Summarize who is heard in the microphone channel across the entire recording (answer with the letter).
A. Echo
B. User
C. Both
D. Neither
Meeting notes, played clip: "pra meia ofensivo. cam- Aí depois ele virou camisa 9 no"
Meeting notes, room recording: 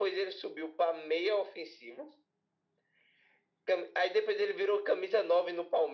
A